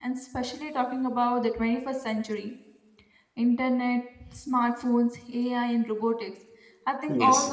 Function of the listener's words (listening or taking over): listening